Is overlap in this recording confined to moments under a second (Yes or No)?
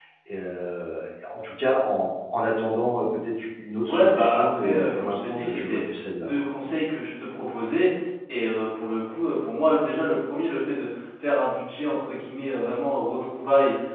No